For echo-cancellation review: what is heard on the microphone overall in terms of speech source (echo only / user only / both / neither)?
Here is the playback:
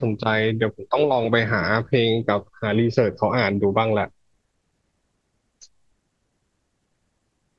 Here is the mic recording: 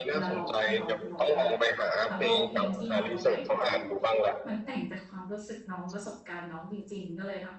both